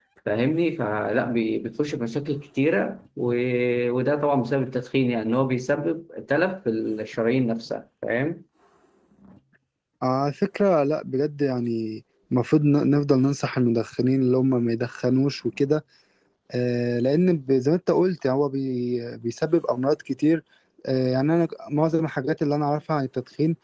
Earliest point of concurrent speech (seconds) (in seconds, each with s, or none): none